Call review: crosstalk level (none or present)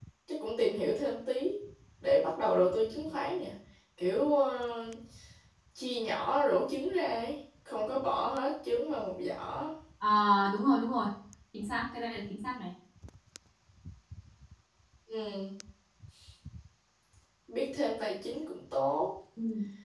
none